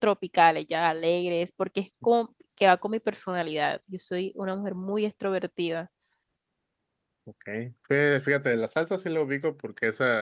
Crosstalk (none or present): none